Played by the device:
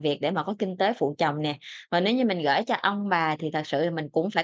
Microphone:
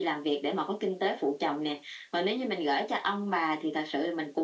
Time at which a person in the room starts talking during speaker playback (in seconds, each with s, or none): none